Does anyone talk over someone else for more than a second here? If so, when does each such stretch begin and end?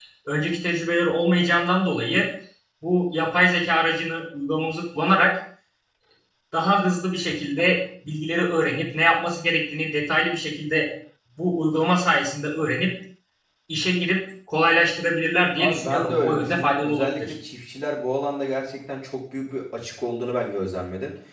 15.6-17.3

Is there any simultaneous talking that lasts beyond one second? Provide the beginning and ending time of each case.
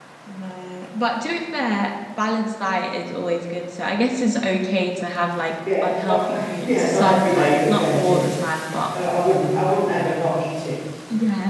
5.8-8.2

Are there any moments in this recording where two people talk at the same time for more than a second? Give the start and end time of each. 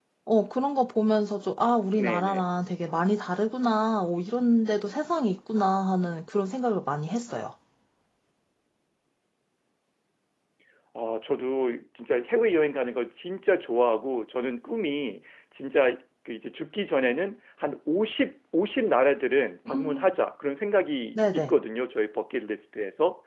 none

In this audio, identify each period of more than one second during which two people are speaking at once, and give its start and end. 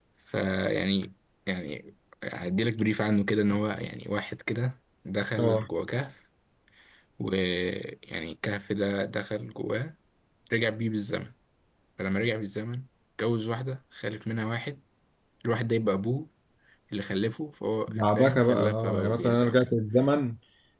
17.9-19.6

